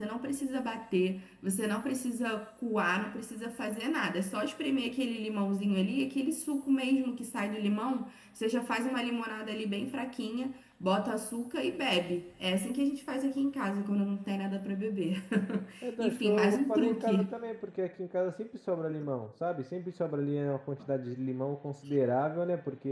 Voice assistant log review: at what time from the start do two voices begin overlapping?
16.0 s

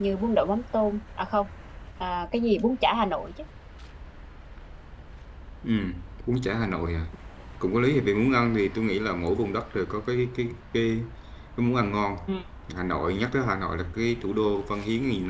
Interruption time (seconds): none

